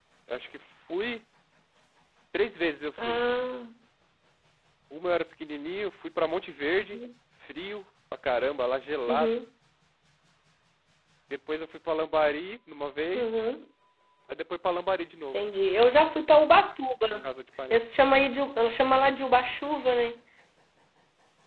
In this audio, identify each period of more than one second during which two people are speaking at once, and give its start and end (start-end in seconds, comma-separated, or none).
none